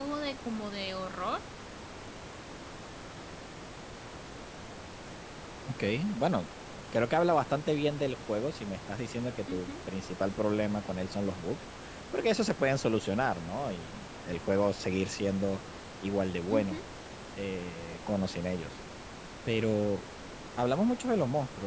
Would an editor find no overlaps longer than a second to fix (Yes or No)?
Yes